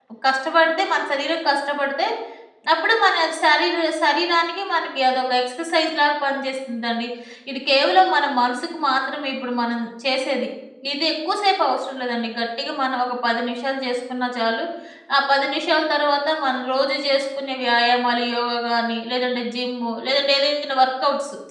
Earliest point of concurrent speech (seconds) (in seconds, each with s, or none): none